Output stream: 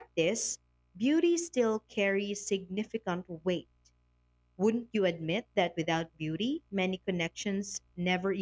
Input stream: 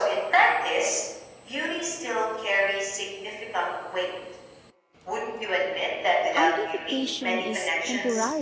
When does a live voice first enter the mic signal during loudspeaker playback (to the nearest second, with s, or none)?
6 s